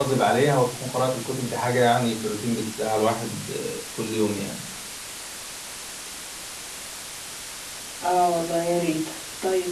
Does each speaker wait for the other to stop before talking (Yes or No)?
Yes